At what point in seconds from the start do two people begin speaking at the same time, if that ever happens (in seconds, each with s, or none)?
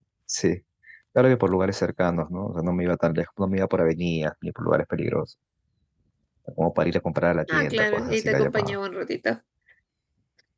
7.5 s